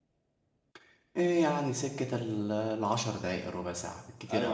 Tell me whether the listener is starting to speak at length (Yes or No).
Yes